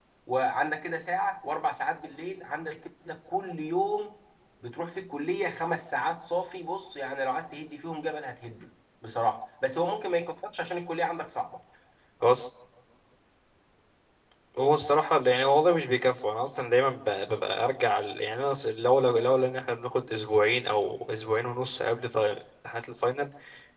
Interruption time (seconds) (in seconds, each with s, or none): none